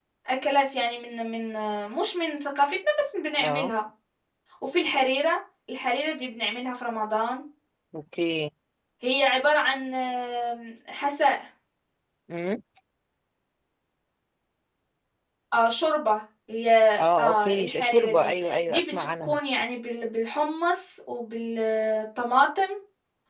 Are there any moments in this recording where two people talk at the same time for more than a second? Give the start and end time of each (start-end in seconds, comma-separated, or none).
17.2-19.4